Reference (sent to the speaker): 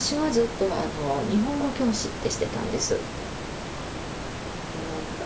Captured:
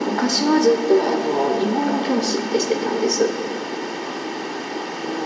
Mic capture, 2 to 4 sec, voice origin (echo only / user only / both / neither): both